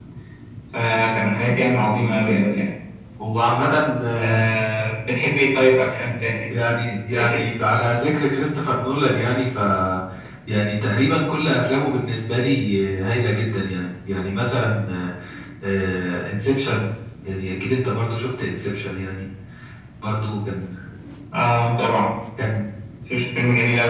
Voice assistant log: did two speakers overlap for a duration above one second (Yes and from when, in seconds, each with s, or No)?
No